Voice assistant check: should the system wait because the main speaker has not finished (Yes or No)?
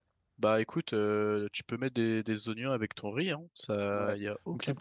No